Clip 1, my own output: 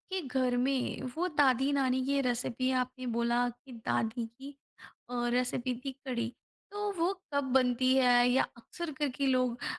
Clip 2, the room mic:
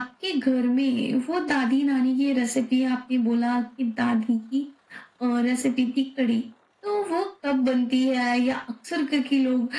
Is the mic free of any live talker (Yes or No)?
Yes